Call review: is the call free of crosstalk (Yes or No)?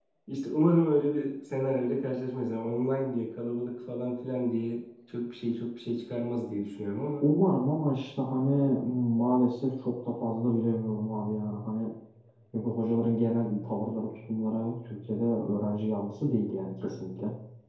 Yes